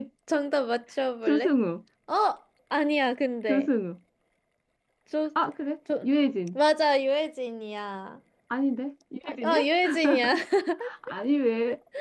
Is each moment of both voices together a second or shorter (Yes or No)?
Yes